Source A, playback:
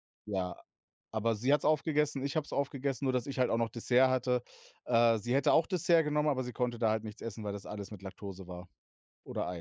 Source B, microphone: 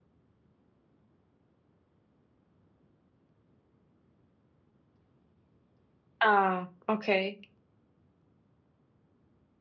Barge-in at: 6 s

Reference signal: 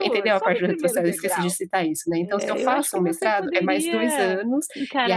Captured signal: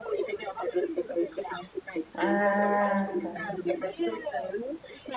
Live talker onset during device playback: 2 s

